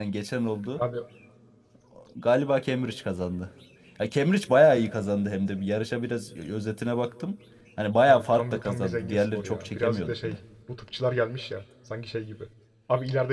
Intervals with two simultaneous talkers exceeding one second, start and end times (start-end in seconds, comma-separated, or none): 8.1-10.4